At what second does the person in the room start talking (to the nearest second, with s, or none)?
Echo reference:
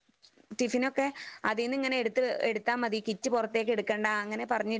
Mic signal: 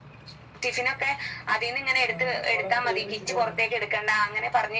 2 s